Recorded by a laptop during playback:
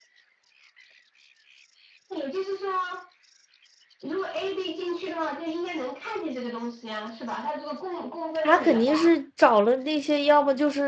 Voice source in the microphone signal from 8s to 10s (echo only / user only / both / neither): both